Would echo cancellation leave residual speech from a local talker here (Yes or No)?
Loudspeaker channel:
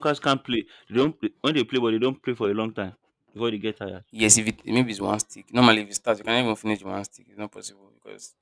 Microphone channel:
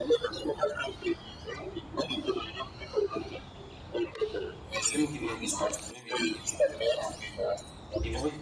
Yes